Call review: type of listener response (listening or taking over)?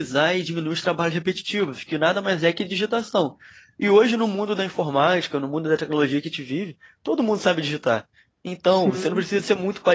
listening